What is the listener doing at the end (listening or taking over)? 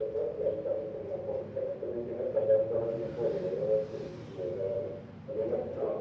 listening